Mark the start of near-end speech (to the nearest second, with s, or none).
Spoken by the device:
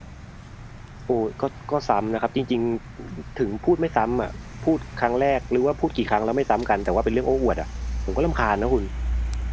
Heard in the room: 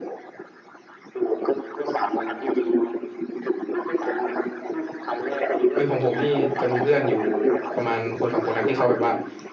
6 s